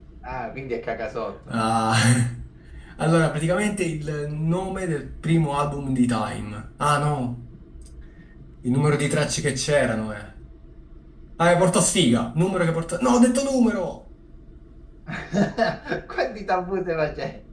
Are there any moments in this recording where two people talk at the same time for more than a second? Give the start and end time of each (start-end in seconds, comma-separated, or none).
none